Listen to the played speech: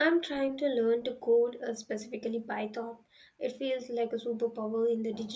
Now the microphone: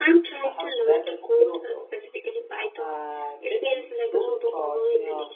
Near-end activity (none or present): present